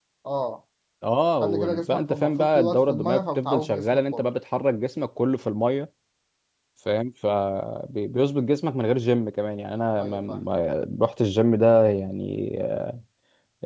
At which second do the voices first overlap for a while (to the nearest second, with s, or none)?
1 s